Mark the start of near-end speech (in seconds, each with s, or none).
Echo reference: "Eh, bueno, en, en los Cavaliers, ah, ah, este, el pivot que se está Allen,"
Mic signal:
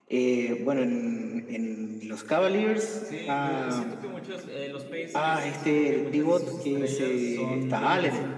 3.0 s